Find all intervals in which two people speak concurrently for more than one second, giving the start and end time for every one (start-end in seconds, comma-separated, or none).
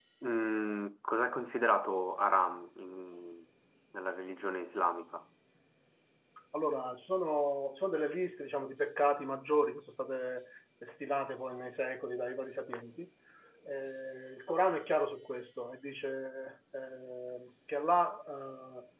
none